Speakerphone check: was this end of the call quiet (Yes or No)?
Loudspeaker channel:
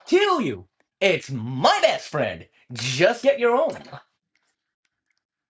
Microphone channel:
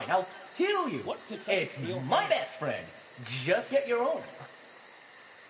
No